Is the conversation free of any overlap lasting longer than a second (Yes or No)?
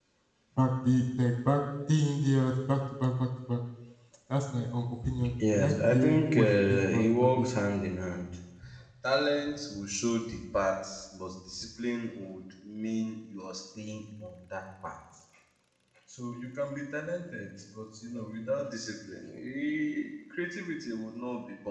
No